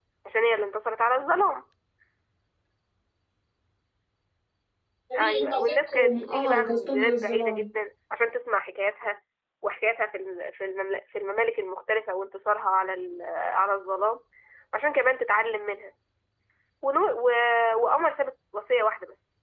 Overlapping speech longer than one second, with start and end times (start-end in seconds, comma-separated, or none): 5.2-7.6